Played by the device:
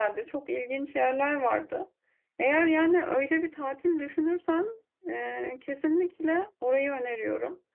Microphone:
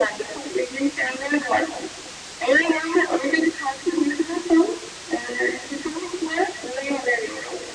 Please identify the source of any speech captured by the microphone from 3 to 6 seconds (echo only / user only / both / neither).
echo only